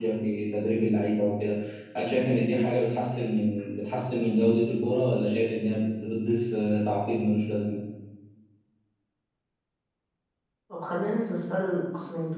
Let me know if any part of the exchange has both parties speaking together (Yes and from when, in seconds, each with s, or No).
No